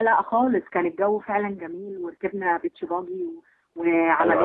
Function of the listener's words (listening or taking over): taking over